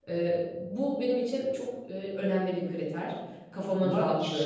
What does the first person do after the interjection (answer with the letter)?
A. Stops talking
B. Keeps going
A